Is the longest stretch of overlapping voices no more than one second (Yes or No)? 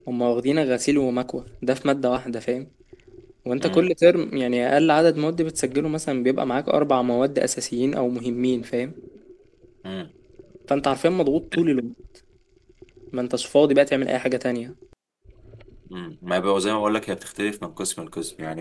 Yes